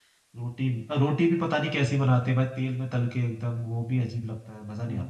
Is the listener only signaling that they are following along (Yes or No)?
No